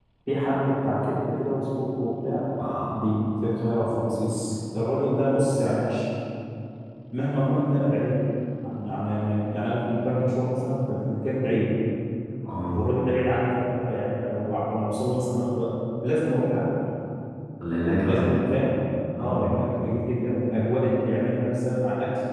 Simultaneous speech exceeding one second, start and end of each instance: none

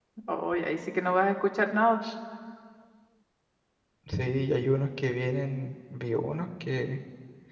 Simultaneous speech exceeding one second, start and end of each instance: none

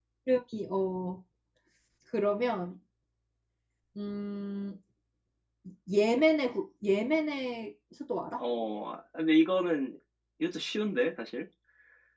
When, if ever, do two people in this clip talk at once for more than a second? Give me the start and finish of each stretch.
none

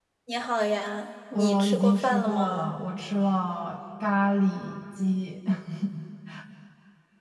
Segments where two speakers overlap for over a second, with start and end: 1.3-2.7

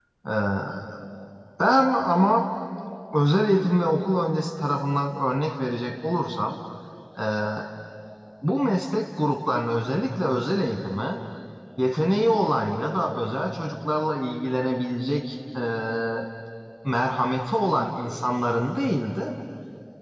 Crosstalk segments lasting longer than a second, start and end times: none

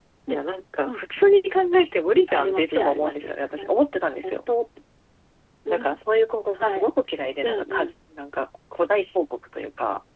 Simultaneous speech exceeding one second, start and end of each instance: 2.3-3.7

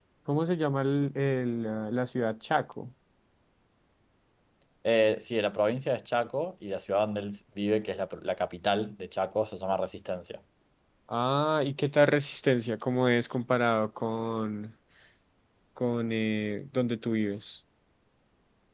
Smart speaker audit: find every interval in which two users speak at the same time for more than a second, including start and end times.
none

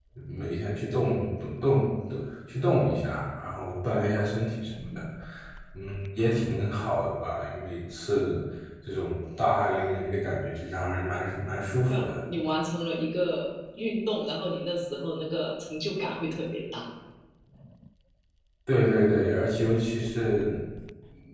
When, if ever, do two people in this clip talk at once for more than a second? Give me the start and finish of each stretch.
none

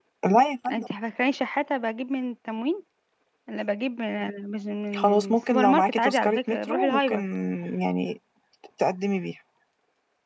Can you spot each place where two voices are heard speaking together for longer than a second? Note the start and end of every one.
4.9-7.2

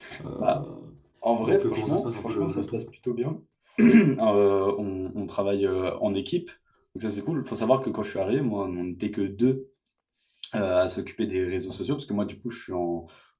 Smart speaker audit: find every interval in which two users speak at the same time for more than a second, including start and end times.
1.4-2.9

